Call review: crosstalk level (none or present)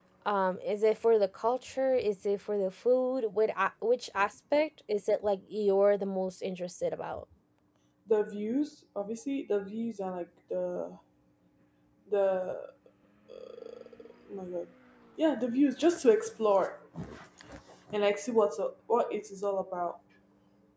none